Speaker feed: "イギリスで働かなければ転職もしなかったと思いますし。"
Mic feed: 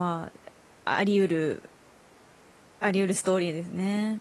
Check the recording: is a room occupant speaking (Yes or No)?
Yes